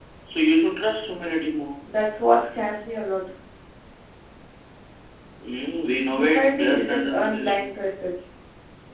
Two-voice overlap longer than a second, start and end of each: 6.1-7.6

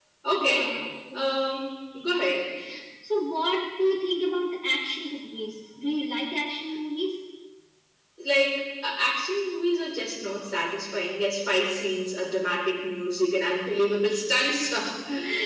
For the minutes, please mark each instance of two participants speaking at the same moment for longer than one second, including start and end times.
none

